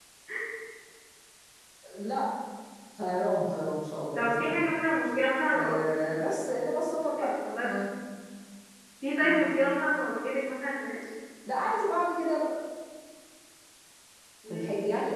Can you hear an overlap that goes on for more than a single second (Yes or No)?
No